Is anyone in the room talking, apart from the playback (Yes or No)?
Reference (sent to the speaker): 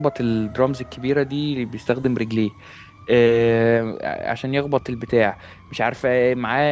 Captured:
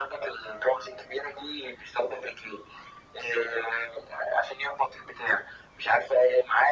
No